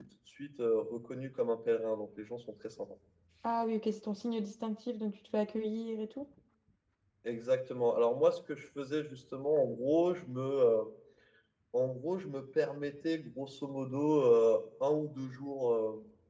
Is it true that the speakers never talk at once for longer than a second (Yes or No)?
Yes